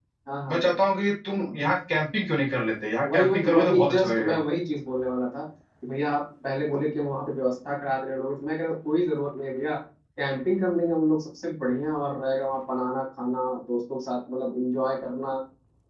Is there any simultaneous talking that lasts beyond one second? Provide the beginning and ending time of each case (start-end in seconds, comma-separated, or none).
3.0-4.4